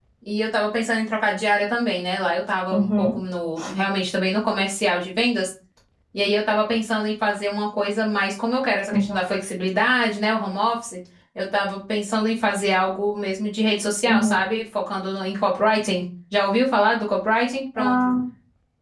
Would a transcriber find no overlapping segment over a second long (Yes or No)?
Yes